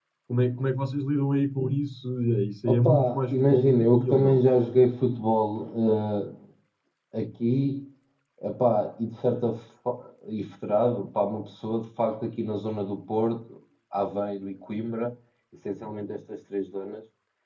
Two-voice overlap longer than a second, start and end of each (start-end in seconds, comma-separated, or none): 2.6-4.4